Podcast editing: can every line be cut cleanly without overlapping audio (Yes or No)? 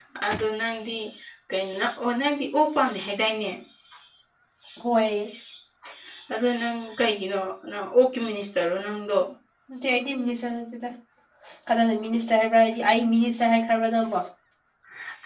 Yes